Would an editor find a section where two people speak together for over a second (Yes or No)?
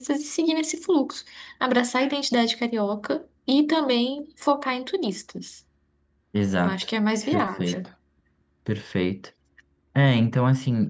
No